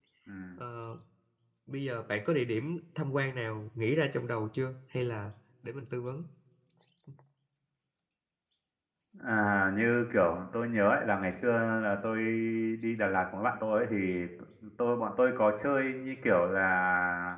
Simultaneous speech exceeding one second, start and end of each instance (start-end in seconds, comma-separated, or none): none